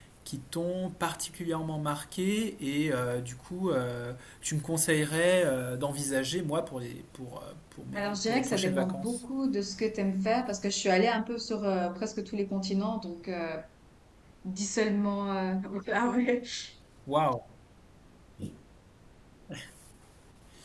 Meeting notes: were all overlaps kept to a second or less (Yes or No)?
No